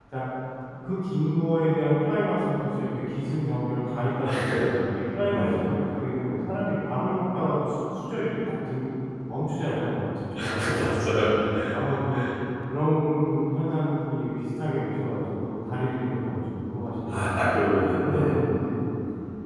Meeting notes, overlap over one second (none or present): present